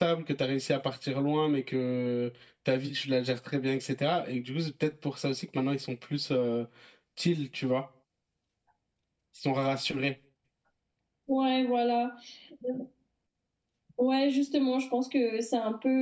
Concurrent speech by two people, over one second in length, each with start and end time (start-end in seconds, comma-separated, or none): none